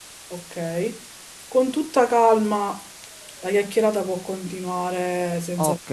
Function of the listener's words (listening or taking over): taking over